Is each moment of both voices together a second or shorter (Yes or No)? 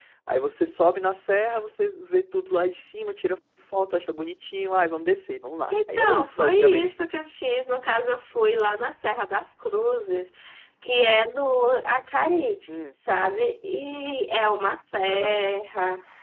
No